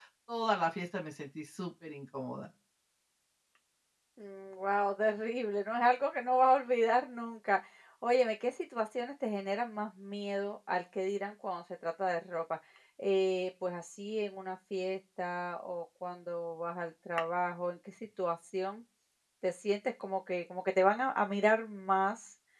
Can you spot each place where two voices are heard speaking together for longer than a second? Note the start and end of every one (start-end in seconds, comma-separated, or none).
none